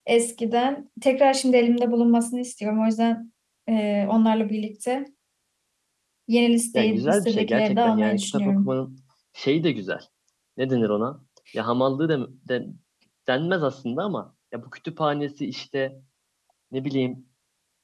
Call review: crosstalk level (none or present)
present